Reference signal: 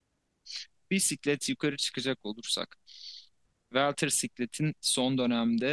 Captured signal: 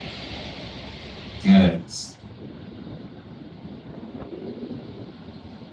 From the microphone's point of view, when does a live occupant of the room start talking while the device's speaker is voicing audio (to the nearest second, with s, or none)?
1 s